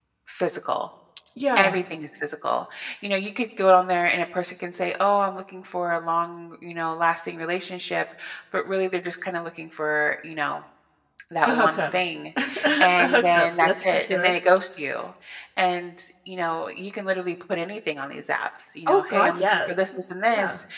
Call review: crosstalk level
present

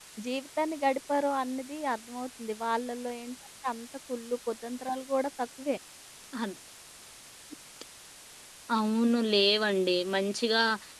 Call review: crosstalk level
none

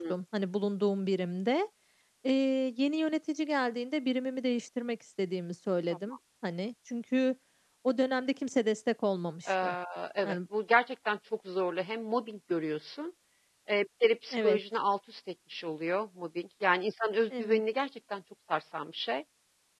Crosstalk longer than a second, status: none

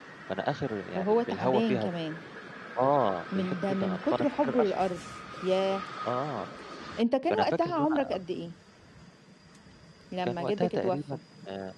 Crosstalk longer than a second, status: present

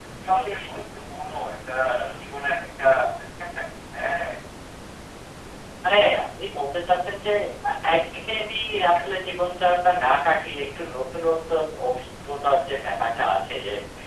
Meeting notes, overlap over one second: none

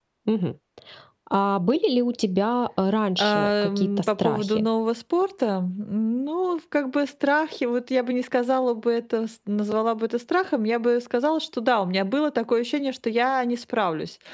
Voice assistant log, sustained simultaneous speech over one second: present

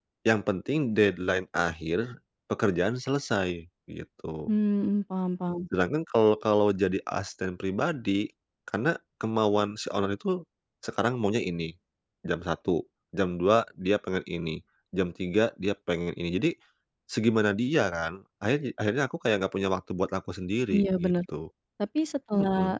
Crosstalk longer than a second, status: none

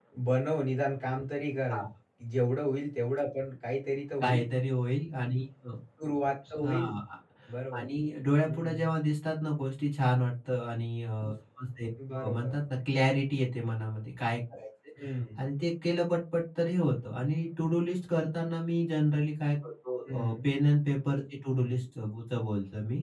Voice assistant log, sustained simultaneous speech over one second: none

